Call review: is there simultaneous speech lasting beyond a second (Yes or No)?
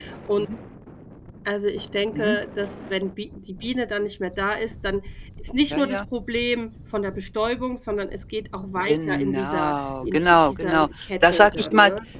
Yes